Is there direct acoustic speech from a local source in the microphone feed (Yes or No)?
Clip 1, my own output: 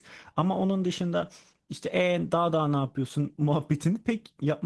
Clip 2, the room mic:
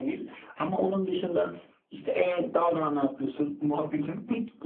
No